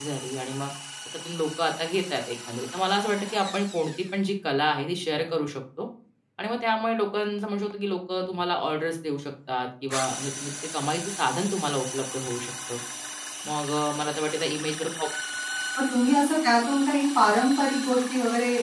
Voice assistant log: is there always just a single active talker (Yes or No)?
Yes